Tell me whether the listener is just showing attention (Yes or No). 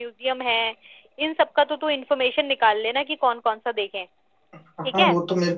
No